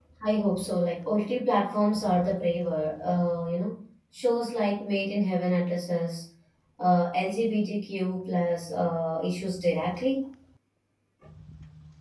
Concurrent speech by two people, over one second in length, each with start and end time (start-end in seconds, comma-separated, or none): none